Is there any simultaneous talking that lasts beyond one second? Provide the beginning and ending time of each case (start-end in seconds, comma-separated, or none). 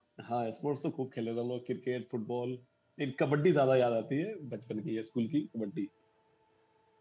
none